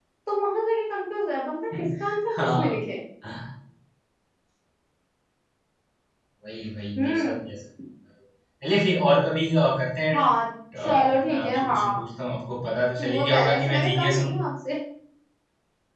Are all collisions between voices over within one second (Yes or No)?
No